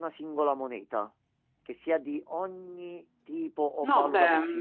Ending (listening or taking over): taking over